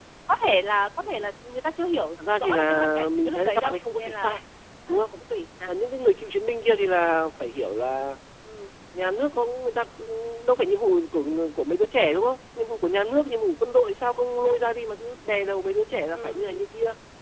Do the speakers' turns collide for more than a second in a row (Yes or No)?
Yes